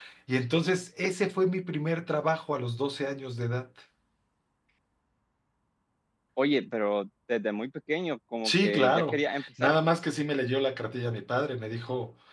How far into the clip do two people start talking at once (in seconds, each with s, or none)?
8.4 s